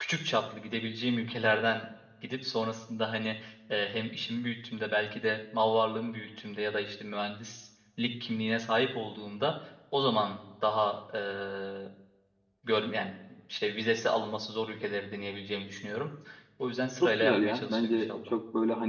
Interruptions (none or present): present